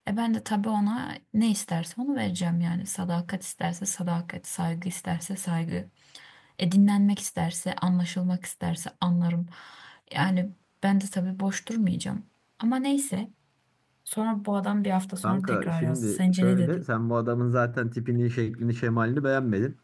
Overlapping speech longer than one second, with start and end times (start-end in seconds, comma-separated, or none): 15.2-16.8